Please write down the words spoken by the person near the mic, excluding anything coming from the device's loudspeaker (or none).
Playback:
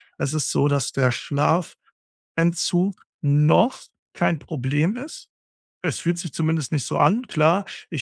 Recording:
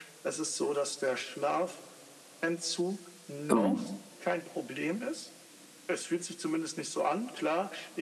ähm,